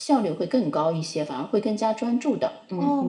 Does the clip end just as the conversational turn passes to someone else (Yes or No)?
Yes